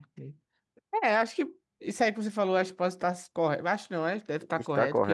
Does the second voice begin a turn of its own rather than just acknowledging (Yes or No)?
No